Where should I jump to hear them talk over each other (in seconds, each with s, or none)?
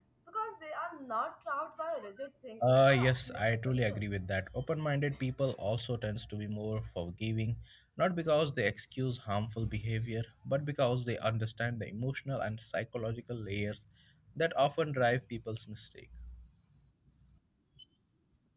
2.6 s